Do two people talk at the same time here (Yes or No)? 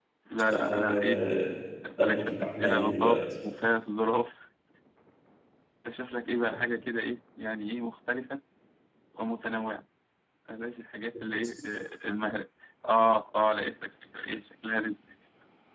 Yes